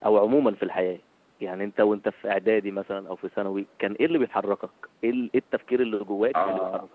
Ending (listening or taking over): taking over